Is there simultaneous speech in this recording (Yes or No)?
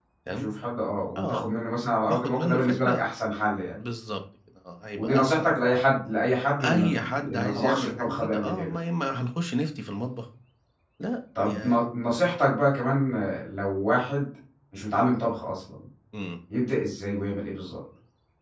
Yes